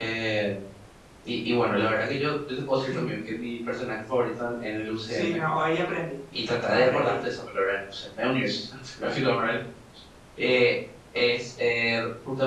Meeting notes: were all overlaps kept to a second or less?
Yes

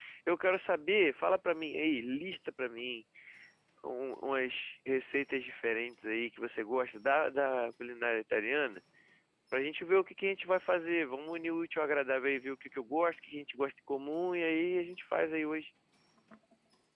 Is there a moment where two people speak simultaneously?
No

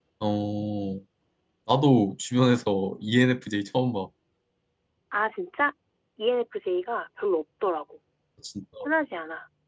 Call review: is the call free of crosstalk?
Yes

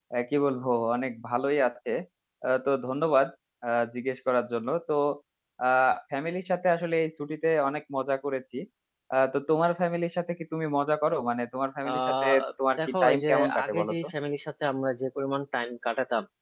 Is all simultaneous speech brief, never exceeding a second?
No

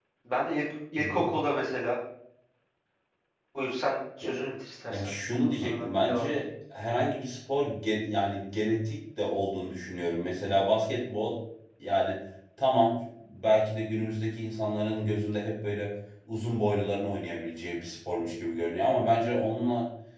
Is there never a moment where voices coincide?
No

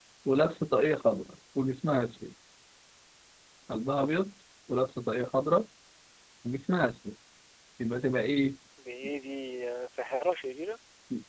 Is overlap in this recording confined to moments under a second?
Yes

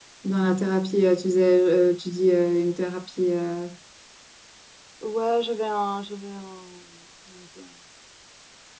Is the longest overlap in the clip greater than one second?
No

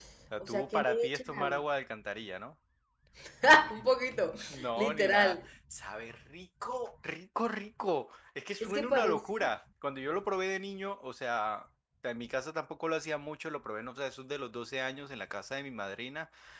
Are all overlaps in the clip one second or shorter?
No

